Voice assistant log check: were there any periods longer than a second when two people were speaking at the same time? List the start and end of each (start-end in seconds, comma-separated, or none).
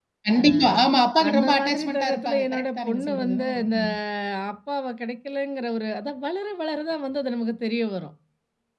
1.3-3.8